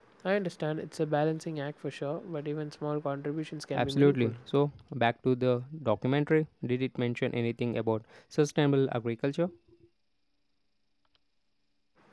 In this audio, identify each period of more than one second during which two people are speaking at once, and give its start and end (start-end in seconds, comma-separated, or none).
none